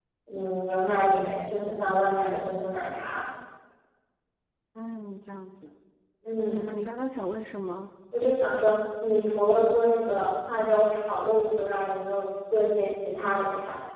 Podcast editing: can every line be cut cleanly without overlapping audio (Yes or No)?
Yes